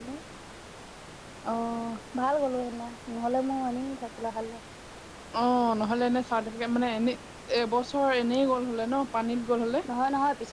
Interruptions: none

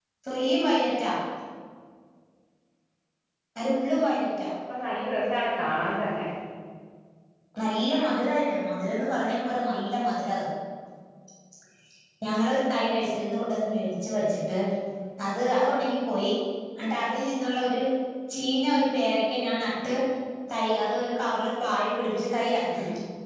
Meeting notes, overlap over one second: none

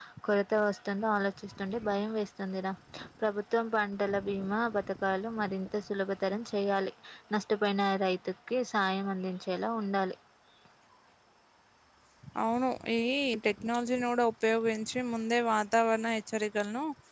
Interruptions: none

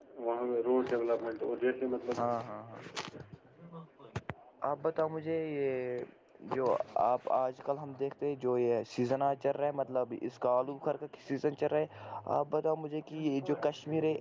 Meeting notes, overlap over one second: none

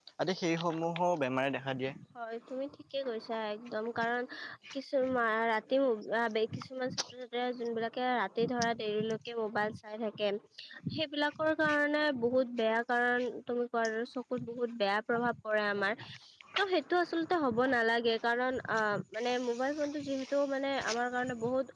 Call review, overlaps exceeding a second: none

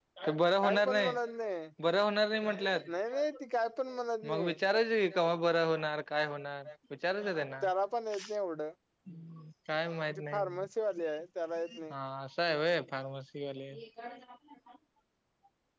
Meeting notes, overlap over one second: none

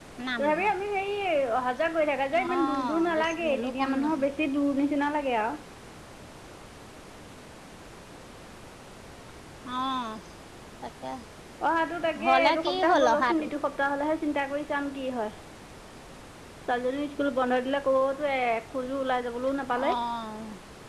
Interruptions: present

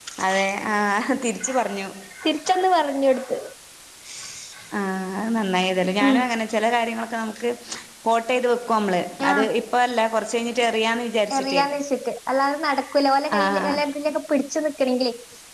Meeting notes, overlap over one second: none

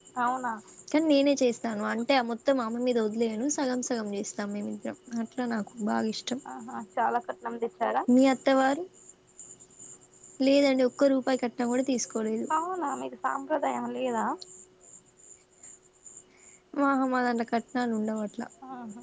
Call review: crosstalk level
none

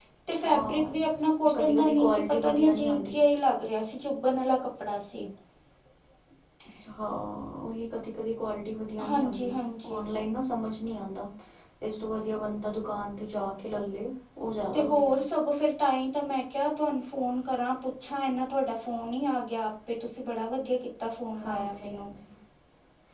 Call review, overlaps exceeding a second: present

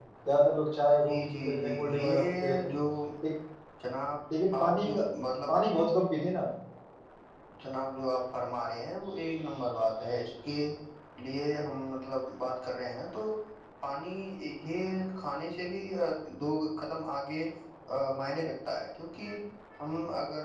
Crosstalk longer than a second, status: present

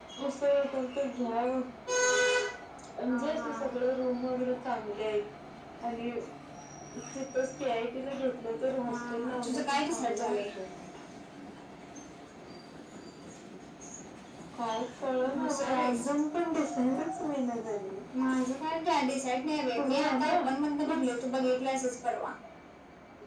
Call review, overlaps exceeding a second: present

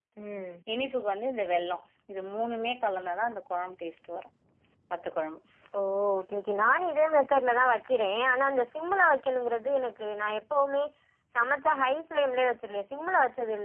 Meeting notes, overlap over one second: none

